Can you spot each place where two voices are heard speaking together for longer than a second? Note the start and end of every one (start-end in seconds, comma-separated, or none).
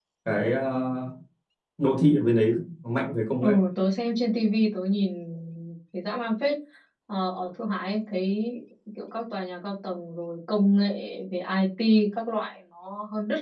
none